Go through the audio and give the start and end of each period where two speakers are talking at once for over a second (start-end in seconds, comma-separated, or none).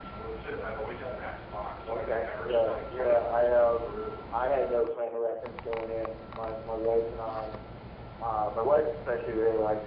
1.9-4.1